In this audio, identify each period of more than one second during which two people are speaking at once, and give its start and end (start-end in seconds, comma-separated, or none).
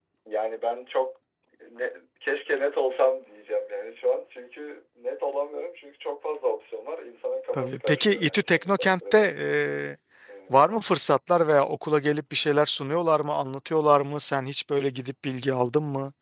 7.5-9.5